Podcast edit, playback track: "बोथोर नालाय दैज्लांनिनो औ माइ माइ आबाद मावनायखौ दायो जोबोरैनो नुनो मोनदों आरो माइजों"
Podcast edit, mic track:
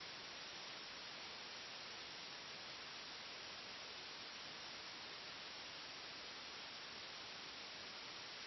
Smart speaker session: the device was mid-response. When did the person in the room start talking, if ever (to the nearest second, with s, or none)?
none